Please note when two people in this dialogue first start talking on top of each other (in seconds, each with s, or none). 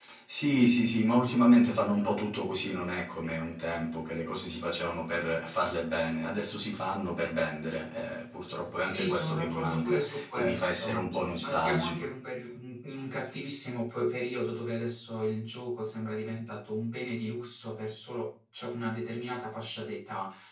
8.8 s